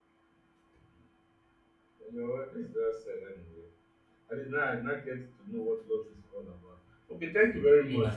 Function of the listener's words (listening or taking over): listening